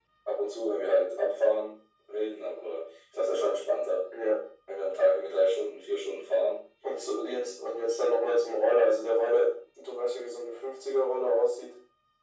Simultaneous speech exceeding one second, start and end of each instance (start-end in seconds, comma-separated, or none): none